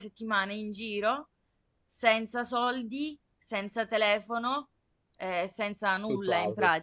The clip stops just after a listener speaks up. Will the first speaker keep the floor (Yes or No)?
Yes